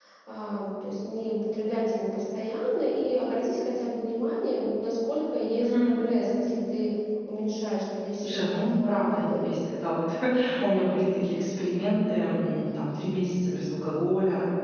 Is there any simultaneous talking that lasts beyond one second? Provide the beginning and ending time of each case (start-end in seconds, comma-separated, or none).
8.2-9.6